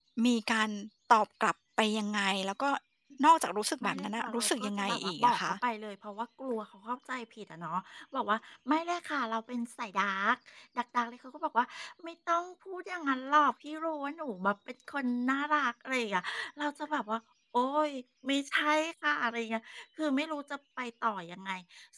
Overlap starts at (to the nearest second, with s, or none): 4 s